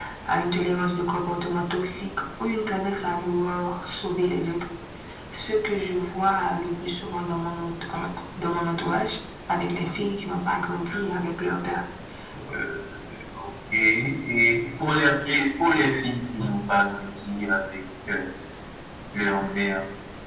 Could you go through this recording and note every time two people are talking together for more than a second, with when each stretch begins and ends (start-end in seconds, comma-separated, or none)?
none